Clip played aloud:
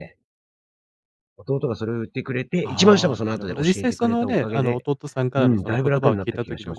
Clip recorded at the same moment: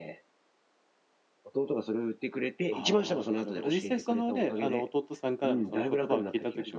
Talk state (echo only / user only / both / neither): echo only